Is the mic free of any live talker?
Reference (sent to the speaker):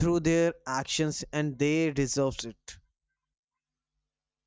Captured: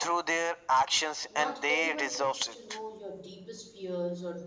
No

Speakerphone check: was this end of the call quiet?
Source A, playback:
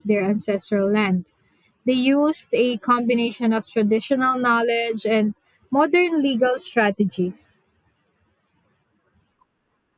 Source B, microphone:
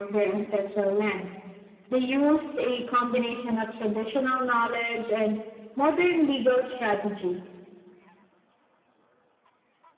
Yes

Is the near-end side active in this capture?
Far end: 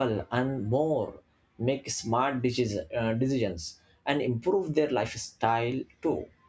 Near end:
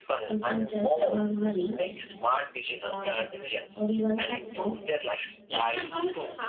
Yes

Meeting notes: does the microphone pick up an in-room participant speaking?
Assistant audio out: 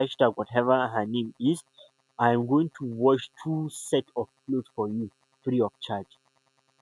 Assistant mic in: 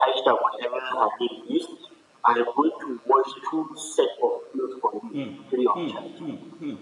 Yes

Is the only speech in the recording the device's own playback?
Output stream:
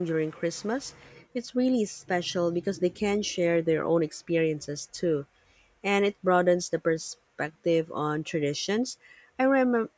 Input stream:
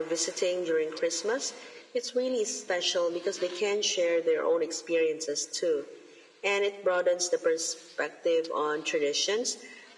Yes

